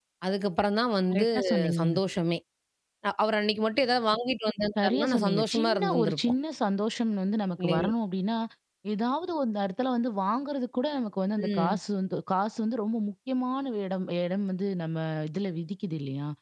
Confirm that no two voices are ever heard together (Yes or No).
No